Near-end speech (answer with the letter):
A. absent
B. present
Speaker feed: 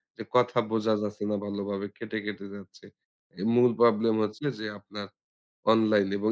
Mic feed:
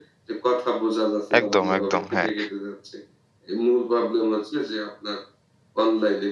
B